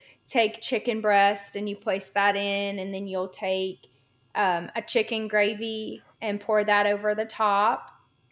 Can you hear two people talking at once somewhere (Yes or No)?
No